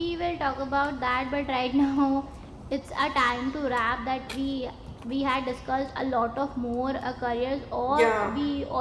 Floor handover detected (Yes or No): No